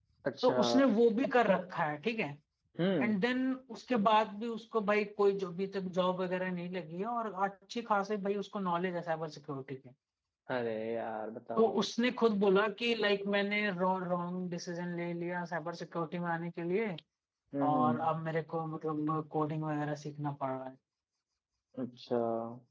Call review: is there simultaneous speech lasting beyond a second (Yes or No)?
No